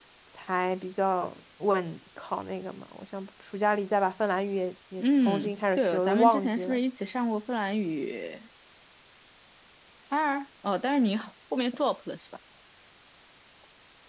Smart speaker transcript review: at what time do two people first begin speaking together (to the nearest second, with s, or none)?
5 s